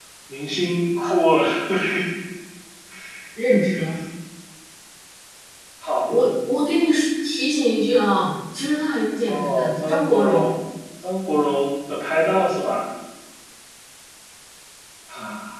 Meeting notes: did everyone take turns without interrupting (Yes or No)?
No